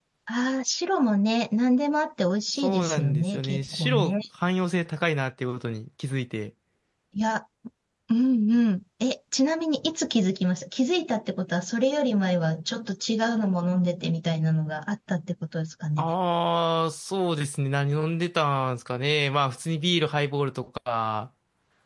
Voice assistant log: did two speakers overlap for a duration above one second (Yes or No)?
Yes